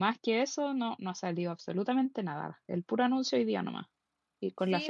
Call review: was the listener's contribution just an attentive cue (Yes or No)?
No